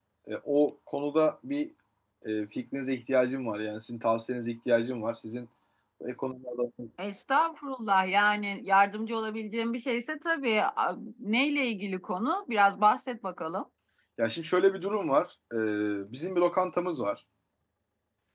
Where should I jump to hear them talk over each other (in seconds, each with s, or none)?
none